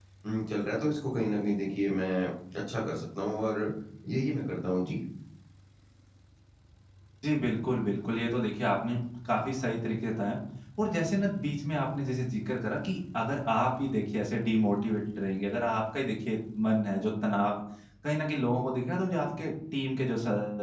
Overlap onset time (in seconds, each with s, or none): none